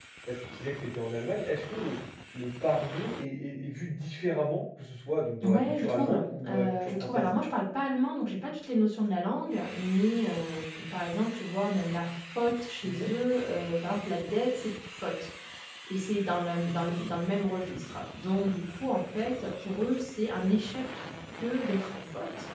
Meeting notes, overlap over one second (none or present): present